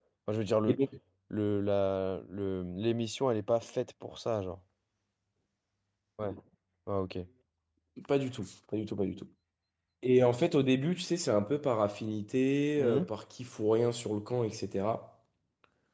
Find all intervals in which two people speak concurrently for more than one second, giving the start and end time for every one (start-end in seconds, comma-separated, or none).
none